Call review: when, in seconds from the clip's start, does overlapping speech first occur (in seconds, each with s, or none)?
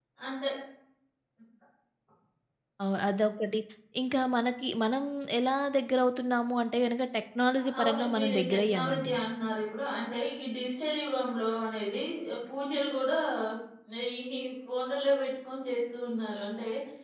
7.6 s